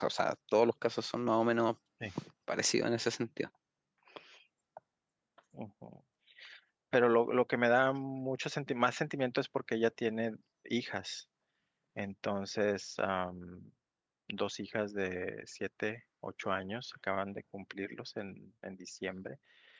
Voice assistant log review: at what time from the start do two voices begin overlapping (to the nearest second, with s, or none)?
none